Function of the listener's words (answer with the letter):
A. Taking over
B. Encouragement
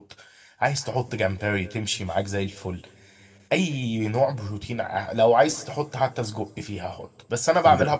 B